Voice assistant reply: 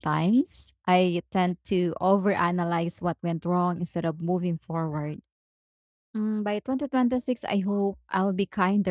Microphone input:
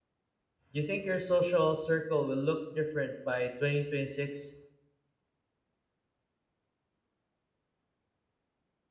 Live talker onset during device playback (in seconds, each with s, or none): 0.7 s